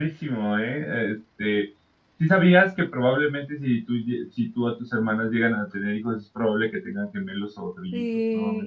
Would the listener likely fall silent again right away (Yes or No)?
No